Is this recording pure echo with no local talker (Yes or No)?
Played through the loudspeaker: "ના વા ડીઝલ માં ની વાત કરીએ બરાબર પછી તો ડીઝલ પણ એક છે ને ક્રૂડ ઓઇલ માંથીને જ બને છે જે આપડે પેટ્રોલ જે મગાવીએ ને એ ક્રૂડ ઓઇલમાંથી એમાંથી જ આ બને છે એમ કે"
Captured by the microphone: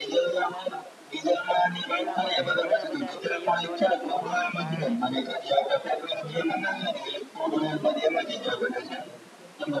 No